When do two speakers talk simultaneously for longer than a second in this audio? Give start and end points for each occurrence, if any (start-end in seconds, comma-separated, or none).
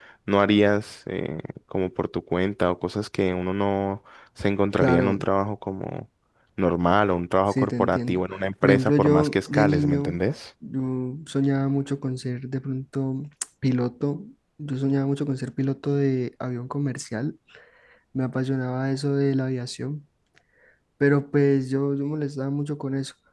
7.5-10.2